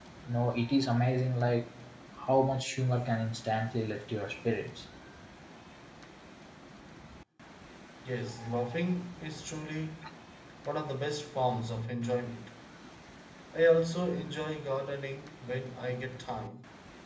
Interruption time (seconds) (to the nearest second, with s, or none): none